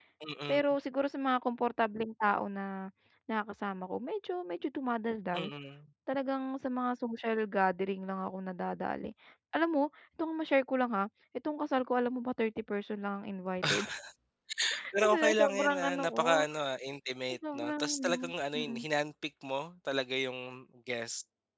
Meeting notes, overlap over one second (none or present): present